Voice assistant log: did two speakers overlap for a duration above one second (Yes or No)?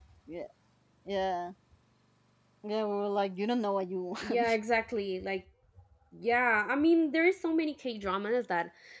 No